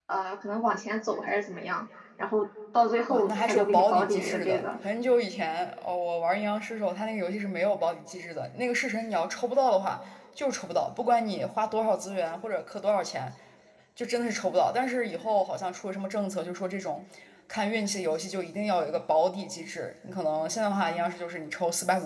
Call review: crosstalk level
present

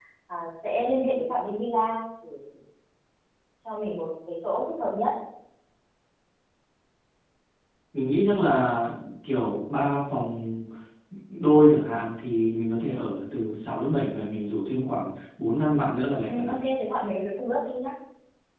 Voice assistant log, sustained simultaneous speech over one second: none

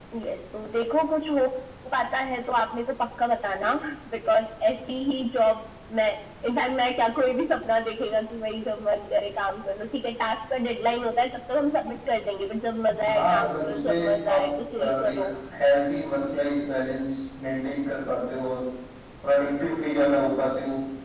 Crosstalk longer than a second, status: present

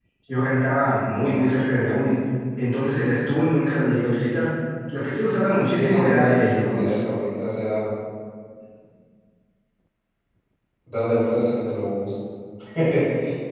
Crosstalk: present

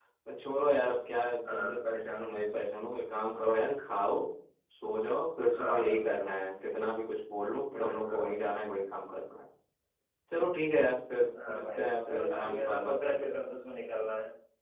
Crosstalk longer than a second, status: present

